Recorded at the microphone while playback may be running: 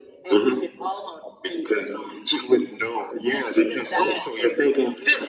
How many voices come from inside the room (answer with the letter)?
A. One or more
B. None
B